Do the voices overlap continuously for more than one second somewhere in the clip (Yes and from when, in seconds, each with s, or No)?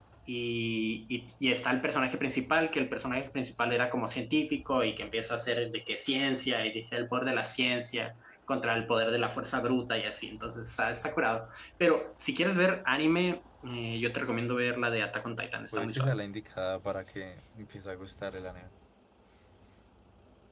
No